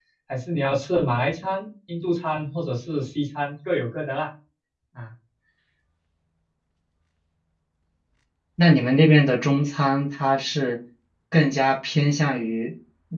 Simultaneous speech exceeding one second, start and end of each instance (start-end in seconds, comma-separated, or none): none